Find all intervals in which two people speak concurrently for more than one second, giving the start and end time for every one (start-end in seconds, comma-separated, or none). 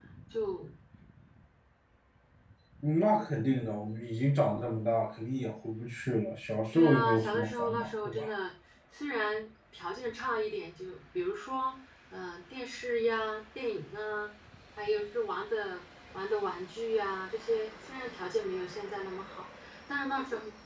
6.7-8.3